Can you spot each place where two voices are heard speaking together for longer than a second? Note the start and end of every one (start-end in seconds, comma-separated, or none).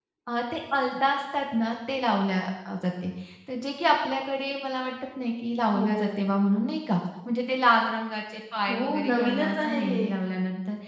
8.7-10.0